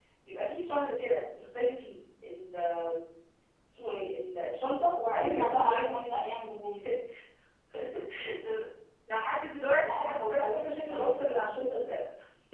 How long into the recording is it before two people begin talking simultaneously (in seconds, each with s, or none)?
5.1 s